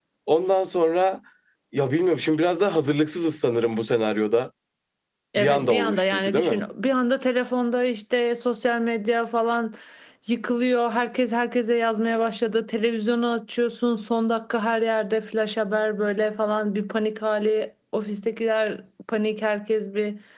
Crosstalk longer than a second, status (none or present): present